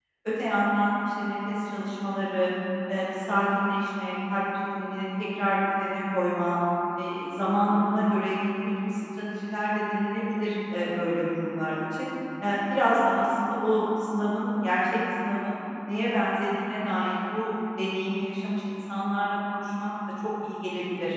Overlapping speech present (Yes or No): No